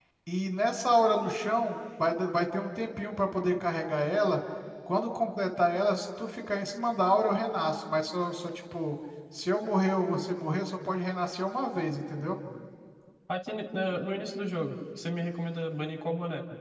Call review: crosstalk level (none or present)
none